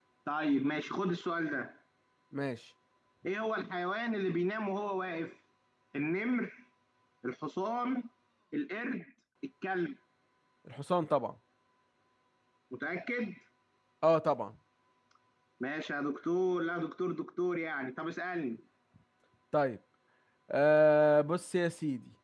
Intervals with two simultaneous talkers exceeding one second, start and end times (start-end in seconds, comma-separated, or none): none